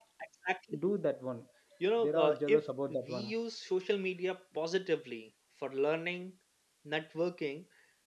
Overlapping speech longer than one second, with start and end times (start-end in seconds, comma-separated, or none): 2.0-3.3